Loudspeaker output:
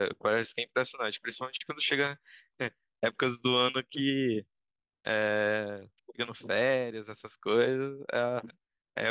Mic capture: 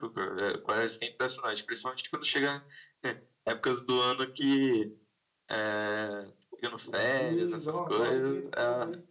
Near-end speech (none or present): present